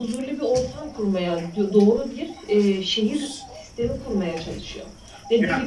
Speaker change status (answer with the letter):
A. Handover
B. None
B